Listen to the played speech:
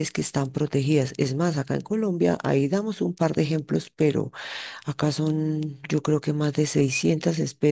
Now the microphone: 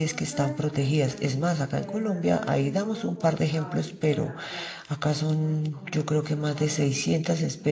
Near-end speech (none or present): present